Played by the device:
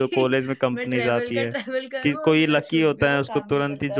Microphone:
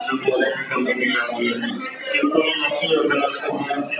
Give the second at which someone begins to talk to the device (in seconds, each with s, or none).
none